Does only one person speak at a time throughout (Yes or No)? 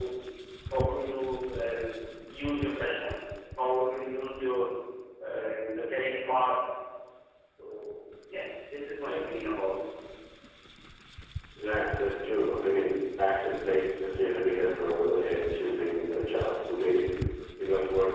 Yes